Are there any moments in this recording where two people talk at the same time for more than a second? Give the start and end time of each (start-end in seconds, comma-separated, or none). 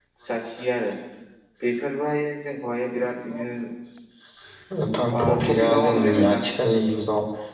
5.2-6.5